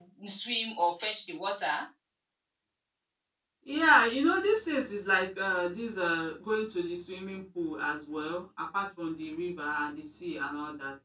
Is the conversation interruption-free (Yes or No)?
Yes